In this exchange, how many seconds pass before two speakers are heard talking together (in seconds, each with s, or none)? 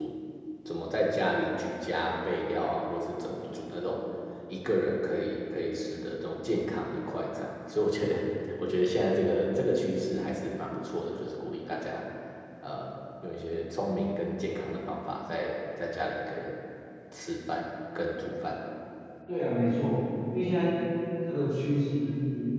none